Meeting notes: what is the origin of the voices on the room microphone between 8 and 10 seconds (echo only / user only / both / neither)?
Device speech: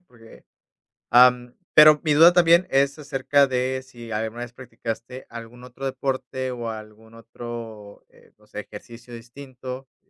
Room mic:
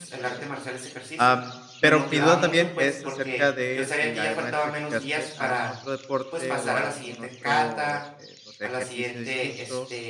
both